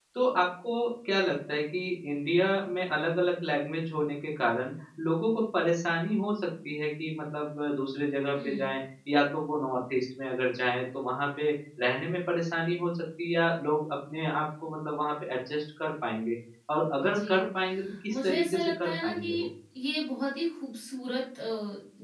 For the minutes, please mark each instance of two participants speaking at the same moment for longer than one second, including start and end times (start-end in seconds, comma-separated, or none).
18.1-19.3